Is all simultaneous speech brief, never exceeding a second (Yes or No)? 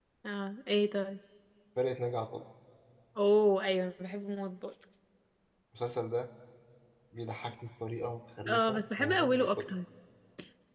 No